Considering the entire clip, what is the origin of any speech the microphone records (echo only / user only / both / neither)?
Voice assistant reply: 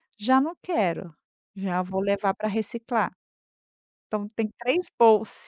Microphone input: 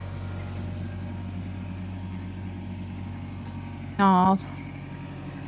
user only